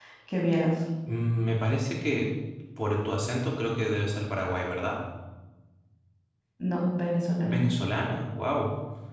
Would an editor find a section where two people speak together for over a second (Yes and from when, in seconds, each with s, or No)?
No